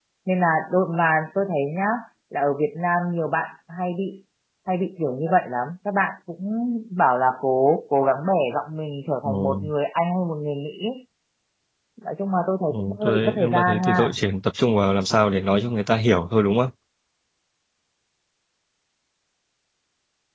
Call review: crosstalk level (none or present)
present